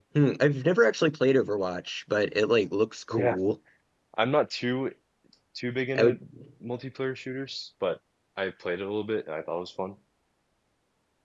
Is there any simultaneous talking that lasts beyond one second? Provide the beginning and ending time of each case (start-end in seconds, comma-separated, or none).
none